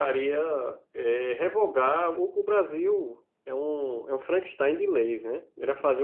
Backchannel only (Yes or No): Yes